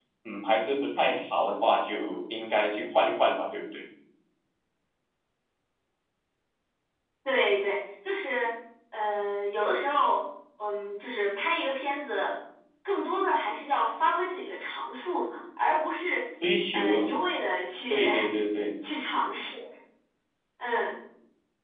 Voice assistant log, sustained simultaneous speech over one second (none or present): none